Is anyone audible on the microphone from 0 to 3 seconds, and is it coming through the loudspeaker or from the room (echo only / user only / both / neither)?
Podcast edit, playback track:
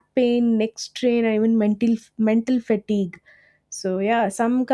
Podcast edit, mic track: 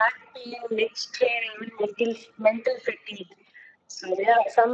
echo only